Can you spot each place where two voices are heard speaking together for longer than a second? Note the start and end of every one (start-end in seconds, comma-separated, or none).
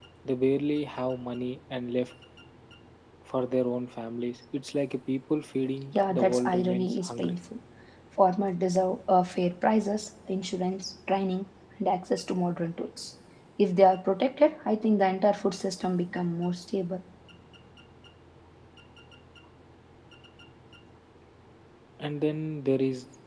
5.9-7.4